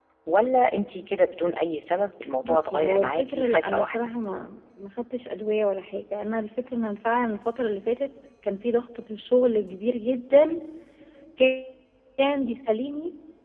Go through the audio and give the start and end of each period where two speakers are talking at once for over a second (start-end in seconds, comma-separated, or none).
2.4-4.0